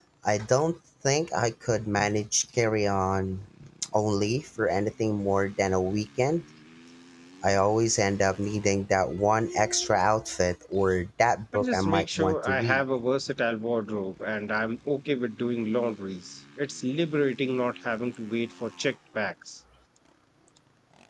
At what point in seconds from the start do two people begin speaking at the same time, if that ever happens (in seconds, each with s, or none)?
11.5 s